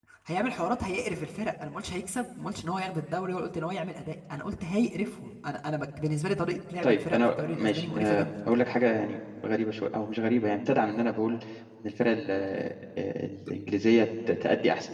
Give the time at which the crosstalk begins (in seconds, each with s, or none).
6.8 s